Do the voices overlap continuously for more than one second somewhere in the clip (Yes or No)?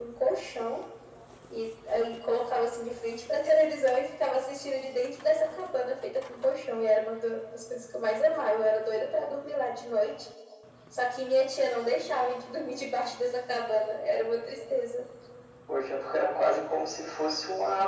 No